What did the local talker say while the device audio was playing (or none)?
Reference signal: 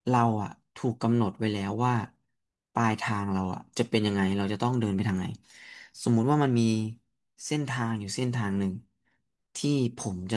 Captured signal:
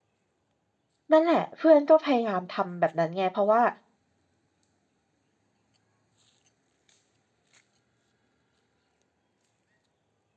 นั่นแหละเพื่อนก็พยายามทำแบบนั้นไงเพราะว่า